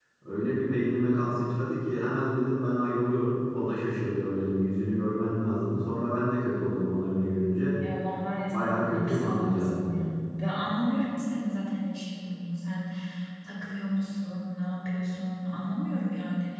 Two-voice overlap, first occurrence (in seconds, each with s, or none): 8.5 s